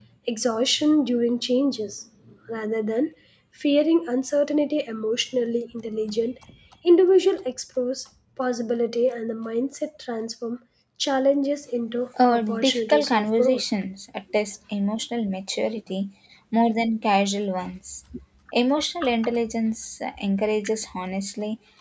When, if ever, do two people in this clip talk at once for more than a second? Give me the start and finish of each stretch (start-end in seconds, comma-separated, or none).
12.3-13.6